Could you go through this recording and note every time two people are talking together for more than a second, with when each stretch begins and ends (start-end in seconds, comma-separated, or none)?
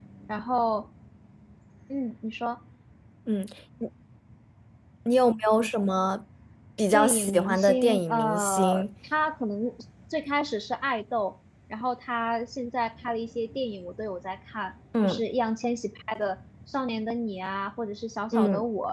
6.9-8.8